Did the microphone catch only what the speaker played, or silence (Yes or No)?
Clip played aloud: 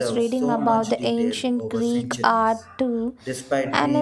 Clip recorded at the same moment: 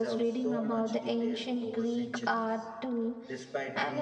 Yes